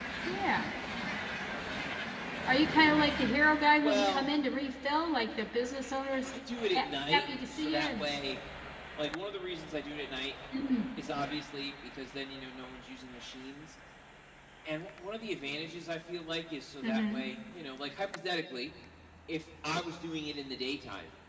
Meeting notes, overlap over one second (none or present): present